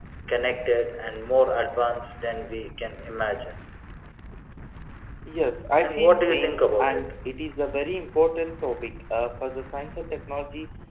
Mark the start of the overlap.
6 s

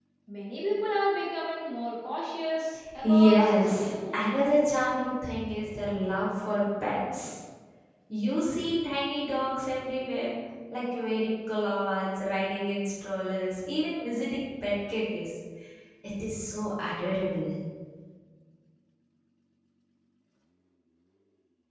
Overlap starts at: 3 s

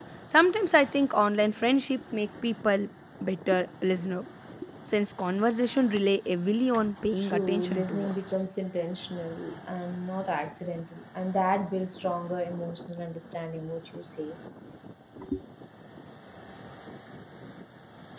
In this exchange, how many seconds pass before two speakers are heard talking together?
7 s

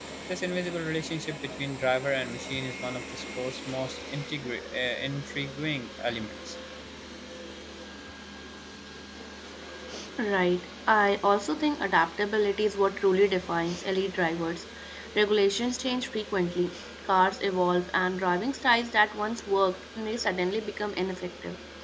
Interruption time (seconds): none

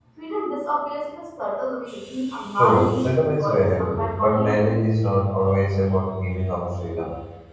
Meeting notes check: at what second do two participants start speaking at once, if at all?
3 s

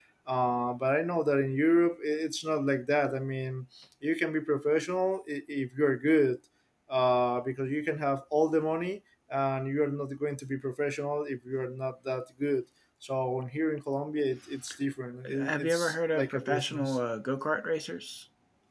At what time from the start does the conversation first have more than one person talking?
15 s

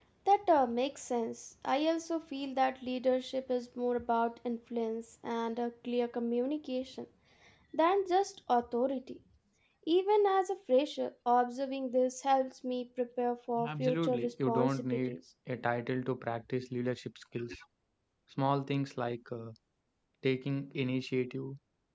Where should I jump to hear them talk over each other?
14 s

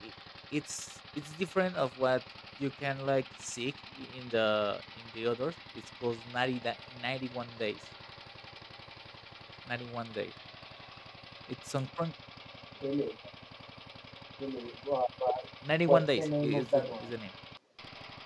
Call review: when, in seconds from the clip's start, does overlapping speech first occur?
16 s

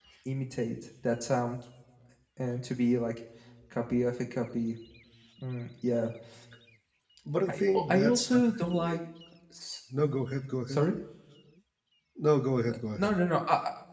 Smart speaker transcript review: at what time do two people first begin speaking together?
7 s

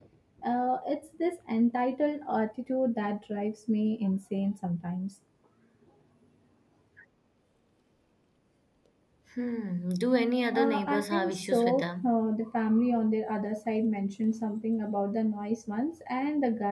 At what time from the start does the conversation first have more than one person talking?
11 s

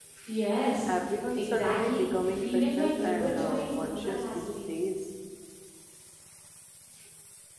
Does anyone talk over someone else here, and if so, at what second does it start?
1 s

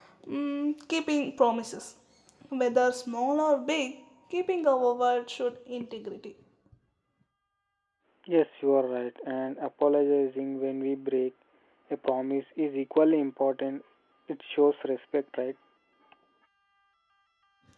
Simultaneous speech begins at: none

